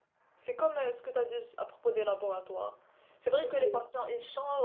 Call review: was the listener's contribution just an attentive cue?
Yes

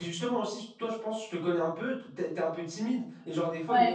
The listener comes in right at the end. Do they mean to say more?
No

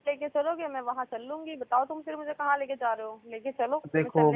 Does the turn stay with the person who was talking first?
No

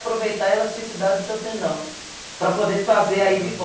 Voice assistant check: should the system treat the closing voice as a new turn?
No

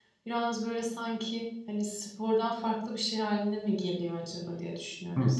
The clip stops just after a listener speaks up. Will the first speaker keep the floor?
No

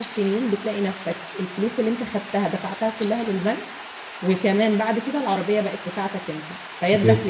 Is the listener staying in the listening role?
Yes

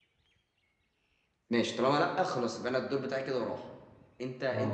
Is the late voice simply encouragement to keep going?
No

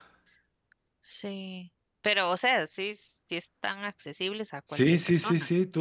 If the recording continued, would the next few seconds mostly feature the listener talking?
Yes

